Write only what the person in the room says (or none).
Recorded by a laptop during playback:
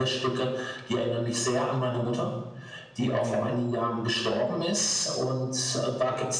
Mhm.